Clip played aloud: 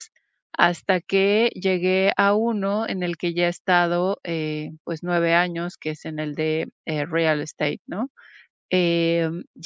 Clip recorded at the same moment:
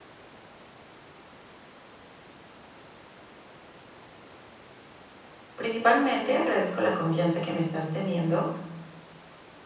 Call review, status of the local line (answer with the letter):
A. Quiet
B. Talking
B